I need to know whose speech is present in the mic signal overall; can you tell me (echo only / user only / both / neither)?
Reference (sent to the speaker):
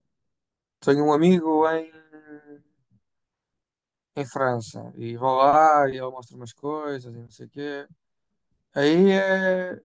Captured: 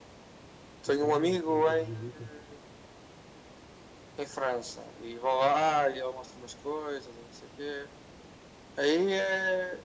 both